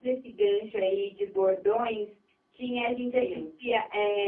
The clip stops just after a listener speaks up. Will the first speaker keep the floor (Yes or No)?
Yes